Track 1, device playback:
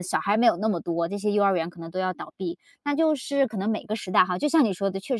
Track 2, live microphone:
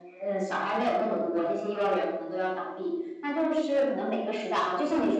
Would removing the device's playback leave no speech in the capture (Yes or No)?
Yes